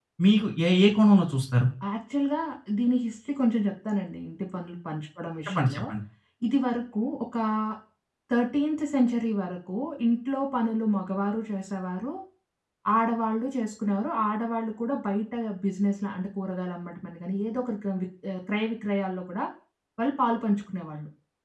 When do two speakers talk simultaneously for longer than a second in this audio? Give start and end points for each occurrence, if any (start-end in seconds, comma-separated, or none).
none